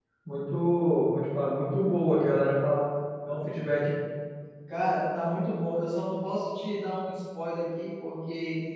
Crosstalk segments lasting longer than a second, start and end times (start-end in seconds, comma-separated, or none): none